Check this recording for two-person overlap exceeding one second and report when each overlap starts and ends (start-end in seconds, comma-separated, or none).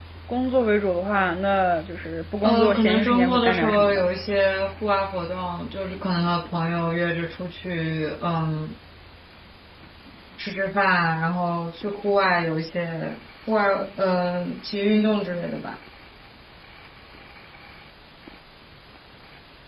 2.4-4.0